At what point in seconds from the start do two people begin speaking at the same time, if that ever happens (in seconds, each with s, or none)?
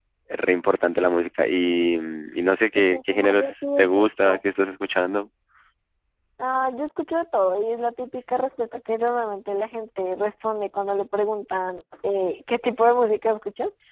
2.9 s